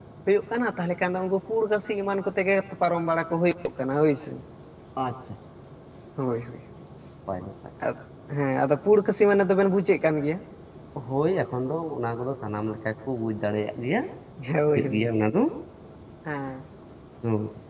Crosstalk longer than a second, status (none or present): none